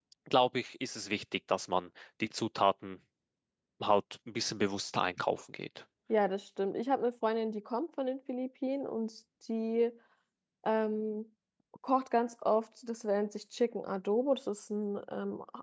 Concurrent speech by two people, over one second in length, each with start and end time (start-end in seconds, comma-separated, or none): none